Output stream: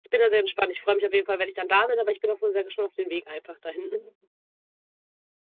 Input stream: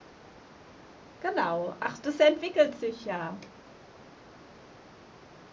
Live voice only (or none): Genau. Ach, das entwickelt sich ja.